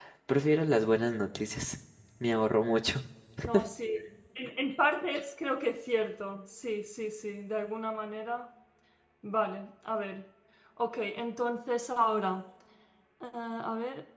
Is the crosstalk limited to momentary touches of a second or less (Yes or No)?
Yes